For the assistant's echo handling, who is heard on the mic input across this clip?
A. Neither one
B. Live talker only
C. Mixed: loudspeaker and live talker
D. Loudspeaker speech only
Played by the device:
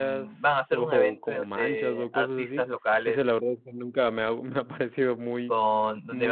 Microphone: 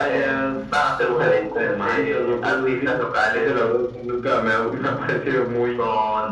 D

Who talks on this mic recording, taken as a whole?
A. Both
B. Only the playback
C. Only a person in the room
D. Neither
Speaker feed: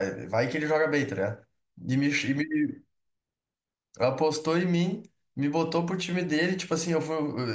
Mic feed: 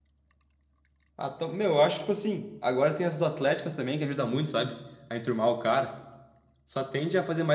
C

